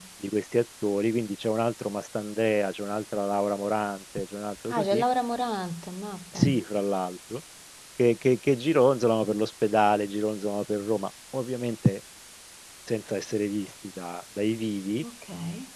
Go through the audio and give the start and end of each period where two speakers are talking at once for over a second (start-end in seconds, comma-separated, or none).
none